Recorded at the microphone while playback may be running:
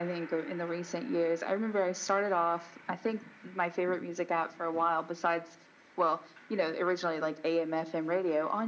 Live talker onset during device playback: none

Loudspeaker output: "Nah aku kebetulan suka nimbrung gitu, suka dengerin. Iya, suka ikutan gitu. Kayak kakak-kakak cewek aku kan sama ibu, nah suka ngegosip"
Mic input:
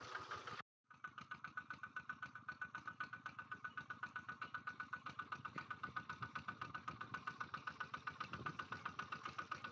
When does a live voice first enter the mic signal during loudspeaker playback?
none

